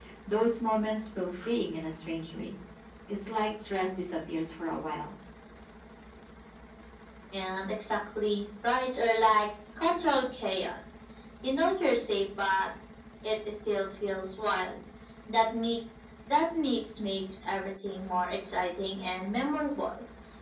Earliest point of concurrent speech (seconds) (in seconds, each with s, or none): none